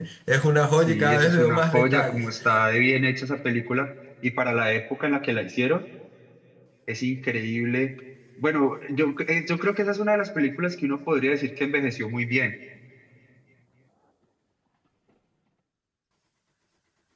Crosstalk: present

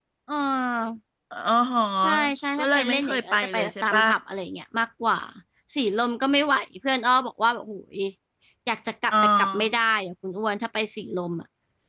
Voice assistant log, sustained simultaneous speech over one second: present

